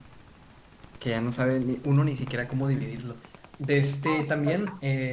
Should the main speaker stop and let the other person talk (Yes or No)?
No